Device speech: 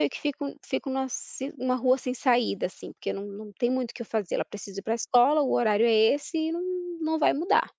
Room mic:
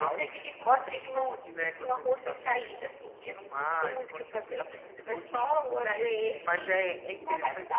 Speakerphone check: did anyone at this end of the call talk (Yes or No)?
Yes